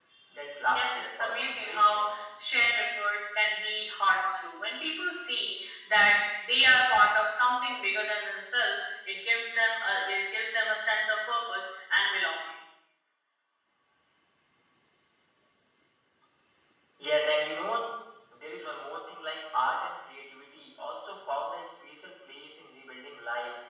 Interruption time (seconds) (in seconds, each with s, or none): 0.7 s